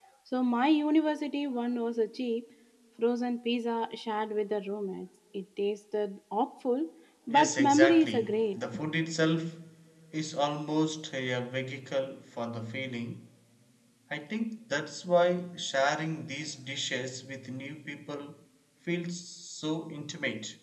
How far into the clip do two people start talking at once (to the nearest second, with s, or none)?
7 s